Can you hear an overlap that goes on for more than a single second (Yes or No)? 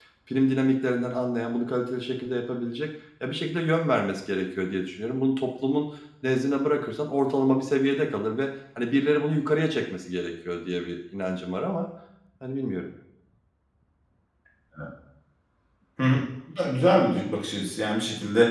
No